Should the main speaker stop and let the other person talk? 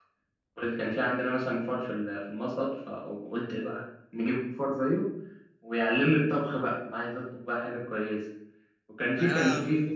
No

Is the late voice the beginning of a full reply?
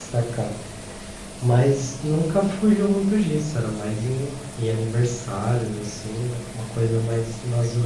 No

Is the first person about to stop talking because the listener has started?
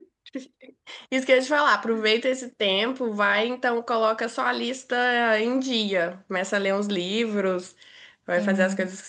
No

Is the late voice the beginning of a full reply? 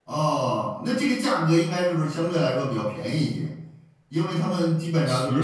No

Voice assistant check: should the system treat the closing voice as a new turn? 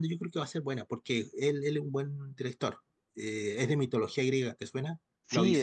Yes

